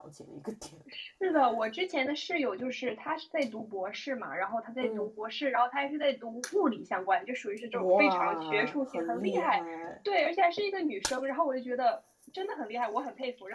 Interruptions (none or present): present